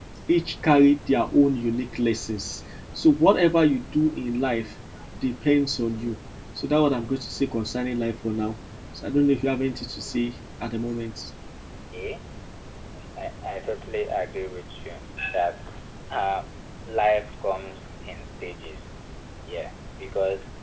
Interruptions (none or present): none